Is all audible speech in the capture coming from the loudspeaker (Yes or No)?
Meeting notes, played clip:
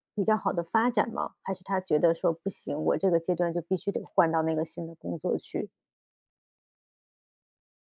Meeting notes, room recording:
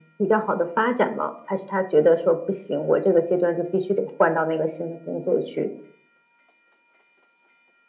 Yes